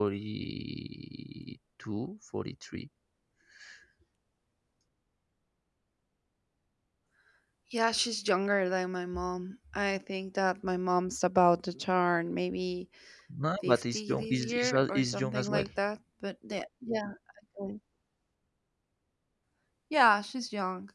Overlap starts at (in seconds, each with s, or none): 13.6 s